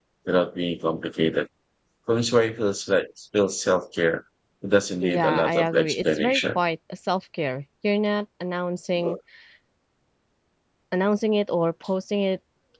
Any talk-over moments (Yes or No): Yes